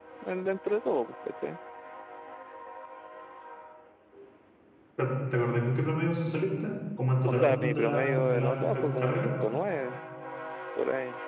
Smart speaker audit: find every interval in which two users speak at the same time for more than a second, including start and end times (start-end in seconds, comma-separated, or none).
7.2-9.3